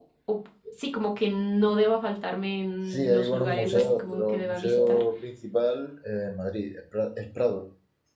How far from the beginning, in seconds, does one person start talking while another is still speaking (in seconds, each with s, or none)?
2.9 s